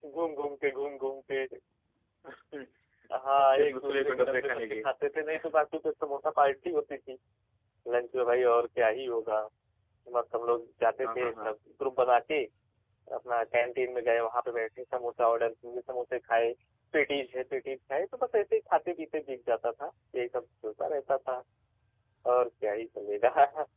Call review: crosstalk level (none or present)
present